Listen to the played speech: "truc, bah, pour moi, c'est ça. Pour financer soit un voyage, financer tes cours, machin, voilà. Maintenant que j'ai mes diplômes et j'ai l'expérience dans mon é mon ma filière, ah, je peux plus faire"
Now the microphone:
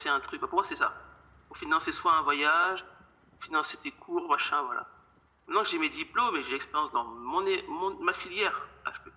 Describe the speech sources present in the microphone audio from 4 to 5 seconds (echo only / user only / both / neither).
echo only